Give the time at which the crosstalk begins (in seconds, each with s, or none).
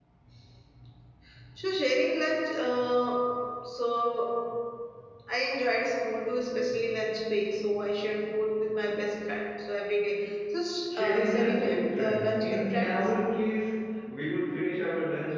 10.9 s